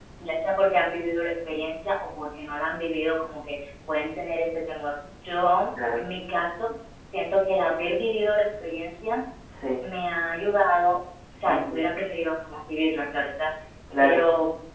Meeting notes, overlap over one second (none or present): none